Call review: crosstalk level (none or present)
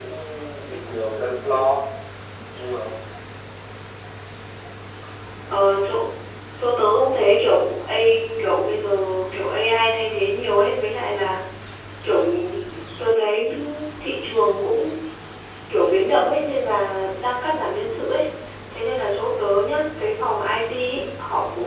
none